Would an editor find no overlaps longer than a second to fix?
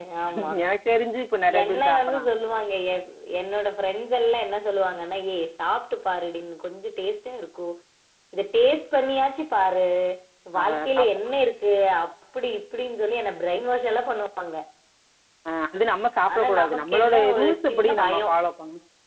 No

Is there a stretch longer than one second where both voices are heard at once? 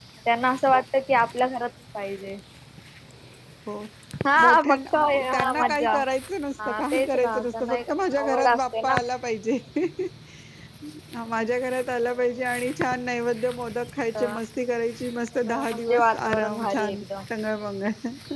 Yes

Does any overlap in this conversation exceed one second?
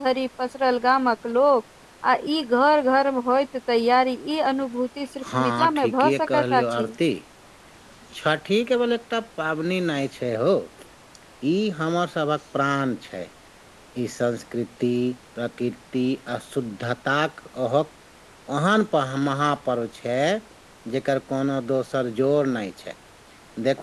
Yes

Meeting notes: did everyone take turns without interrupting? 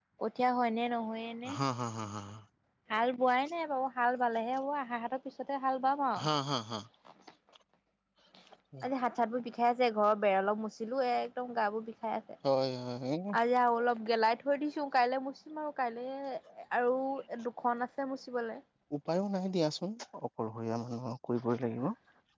Yes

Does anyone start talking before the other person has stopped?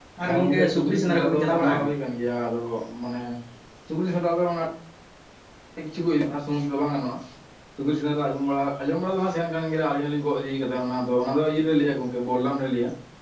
Yes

